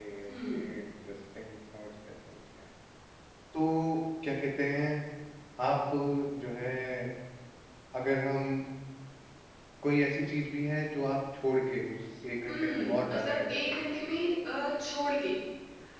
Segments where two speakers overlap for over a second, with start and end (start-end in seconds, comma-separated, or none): 12.5-14.2